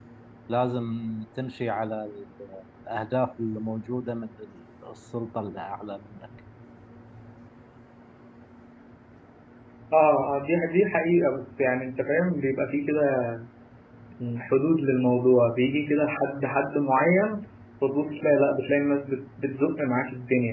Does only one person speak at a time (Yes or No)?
Yes